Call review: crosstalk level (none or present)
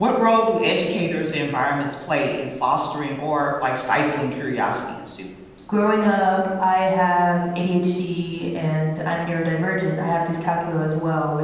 none